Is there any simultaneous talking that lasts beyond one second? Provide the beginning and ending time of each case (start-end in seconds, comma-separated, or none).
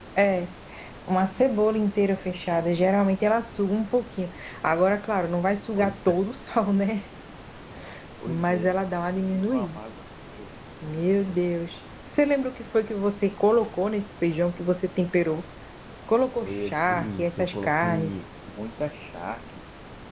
16.4-18.1